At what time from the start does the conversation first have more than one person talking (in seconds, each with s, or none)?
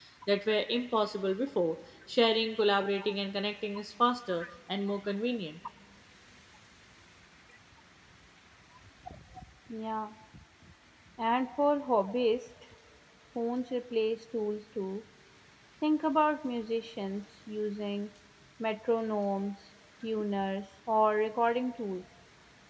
none